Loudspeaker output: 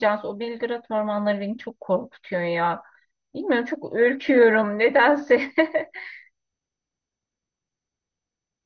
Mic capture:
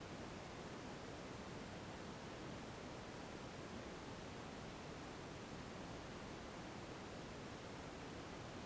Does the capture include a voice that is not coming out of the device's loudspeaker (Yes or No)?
No